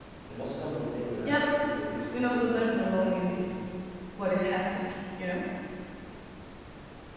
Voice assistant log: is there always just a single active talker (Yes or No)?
No